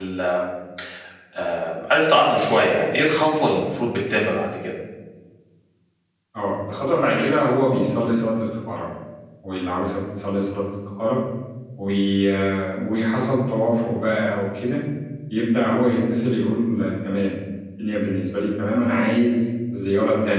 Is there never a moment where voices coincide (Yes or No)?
Yes